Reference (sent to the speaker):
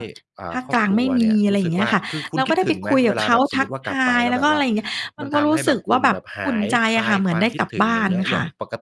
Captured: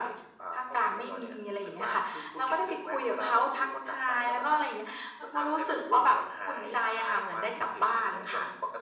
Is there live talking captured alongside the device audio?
No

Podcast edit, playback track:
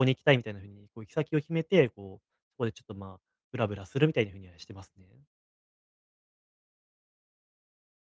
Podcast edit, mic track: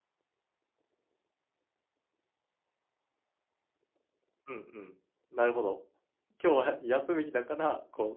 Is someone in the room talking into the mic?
Yes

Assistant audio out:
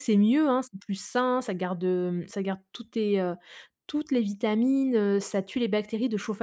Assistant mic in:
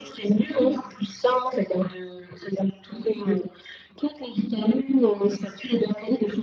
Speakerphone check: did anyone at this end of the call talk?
Yes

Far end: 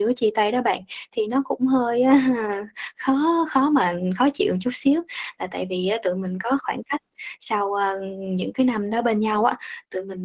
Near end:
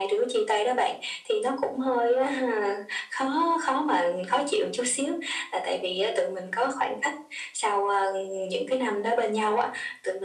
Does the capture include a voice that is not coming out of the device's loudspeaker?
No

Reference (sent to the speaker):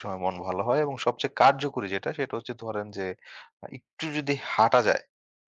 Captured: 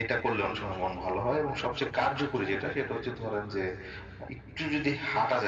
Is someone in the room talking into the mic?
No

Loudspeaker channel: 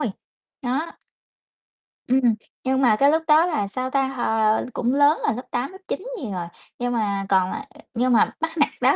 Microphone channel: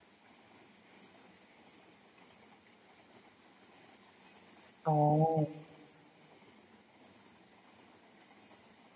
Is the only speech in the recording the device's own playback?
No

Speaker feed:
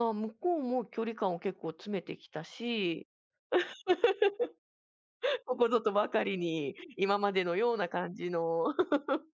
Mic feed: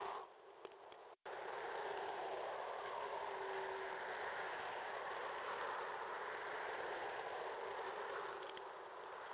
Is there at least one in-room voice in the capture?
No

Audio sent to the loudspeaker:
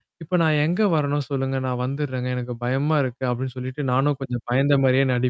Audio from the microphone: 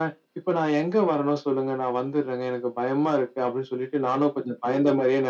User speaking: No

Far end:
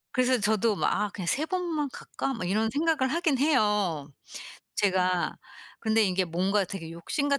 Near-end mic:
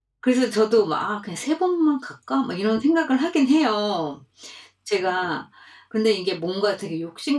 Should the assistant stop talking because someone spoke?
No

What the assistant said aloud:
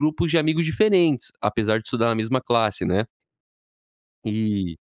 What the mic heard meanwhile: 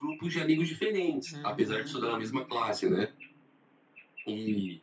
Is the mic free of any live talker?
No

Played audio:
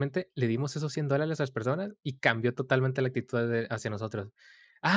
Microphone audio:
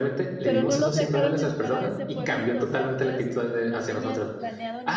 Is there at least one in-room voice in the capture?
Yes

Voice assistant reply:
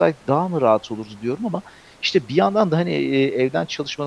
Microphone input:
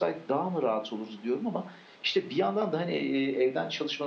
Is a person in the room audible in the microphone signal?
No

